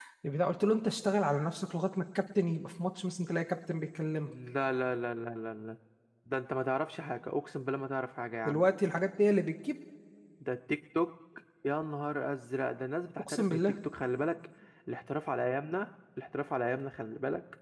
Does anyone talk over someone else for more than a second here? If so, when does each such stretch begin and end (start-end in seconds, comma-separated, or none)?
none